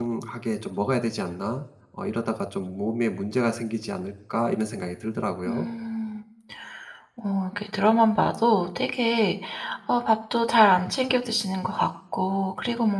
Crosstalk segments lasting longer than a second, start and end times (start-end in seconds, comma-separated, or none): none